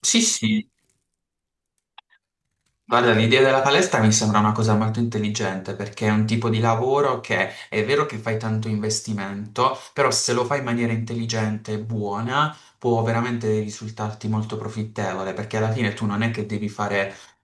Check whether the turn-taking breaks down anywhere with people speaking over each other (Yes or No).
No